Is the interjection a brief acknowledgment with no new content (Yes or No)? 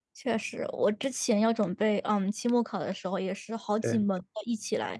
Yes